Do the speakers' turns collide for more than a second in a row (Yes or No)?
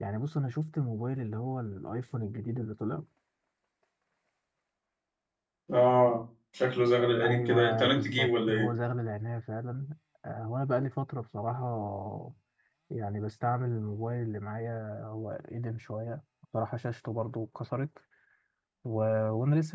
Yes